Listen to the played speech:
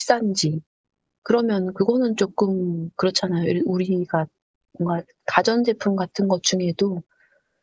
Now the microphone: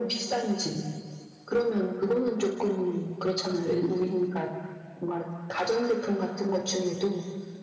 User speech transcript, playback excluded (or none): none